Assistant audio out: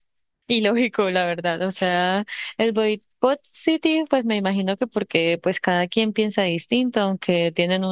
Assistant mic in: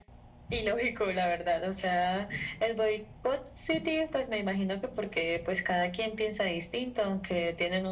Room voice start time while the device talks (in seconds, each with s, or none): none